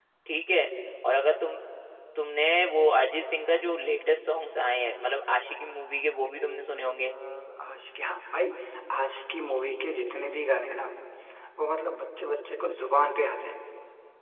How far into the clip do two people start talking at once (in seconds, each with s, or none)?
none